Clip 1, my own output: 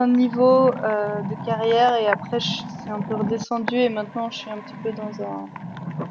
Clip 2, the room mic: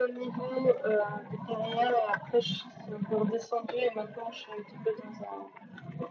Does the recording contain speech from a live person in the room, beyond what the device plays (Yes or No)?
No